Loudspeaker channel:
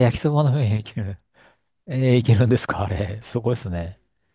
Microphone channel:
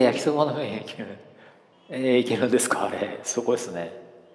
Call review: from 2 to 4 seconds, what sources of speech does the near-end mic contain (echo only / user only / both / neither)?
echo only